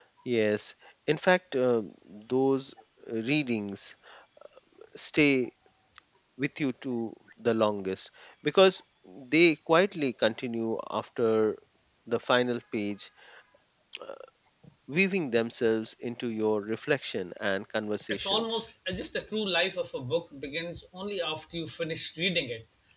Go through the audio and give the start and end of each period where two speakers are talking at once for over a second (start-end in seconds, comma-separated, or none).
none